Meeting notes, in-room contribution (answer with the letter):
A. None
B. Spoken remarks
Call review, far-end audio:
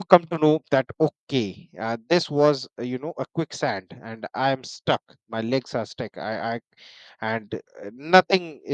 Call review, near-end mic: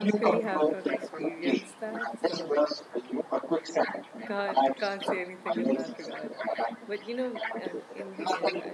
B